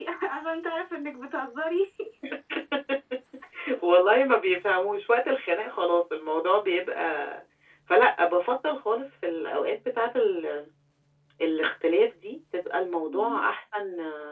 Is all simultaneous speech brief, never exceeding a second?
Yes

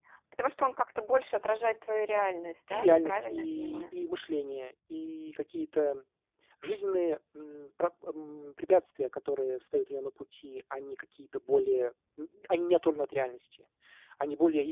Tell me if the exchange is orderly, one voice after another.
No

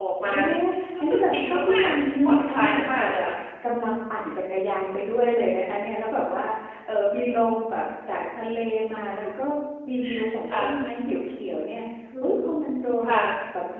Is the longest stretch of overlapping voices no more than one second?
No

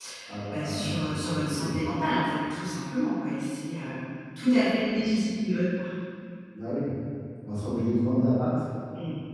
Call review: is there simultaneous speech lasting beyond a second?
Yes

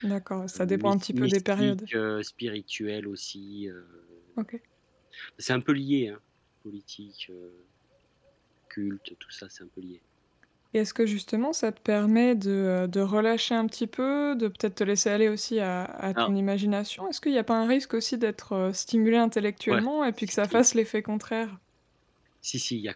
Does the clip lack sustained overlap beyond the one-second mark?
No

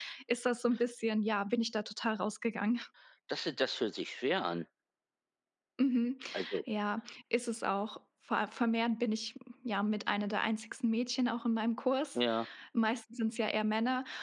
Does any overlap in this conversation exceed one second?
No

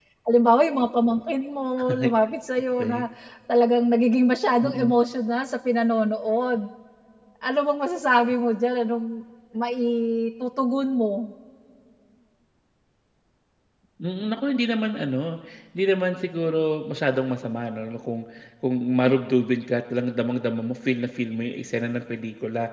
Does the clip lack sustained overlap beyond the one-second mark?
Yes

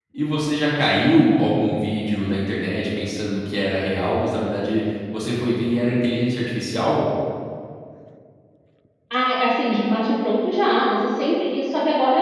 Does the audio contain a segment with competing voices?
No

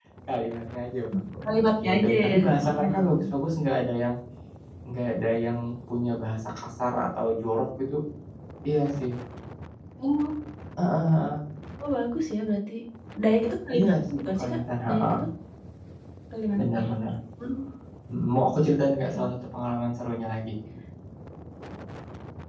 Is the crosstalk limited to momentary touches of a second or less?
No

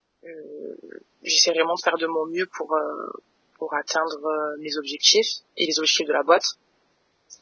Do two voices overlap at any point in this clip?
No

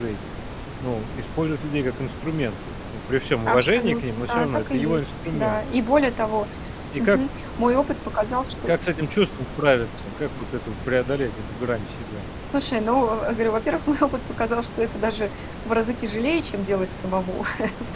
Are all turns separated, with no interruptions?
No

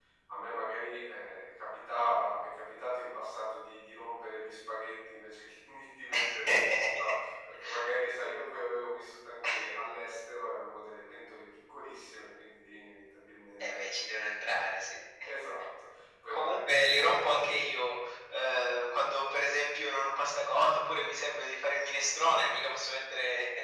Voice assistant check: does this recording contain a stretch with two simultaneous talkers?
Yes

